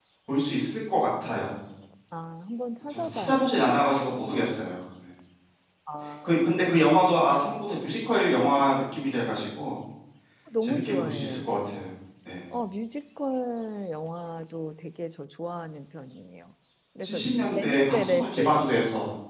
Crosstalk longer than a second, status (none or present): present